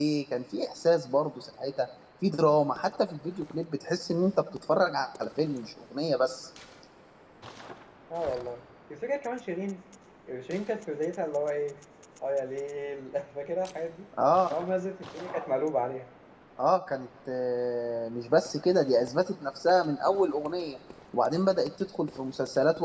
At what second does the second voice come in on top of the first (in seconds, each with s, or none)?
none